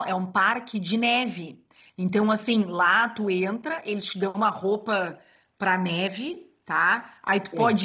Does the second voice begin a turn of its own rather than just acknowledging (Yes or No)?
No